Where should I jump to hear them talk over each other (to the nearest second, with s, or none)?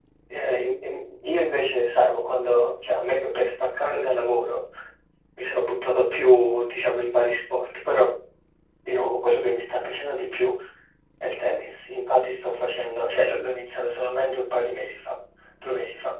none